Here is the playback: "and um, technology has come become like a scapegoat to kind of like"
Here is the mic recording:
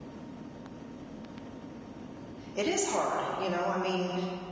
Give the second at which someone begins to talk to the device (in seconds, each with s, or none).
2.5 s